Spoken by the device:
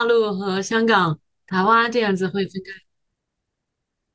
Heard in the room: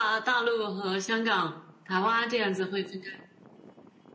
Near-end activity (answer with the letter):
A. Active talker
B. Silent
B